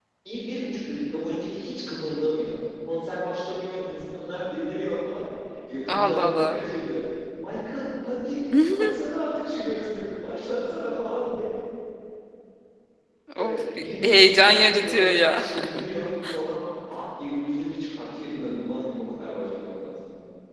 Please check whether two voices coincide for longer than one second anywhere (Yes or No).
Yes